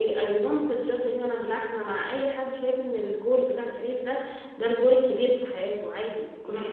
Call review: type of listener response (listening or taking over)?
taking over